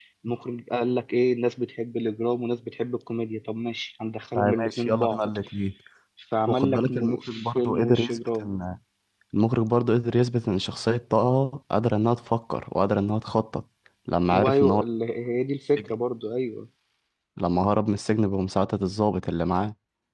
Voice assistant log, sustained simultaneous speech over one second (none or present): present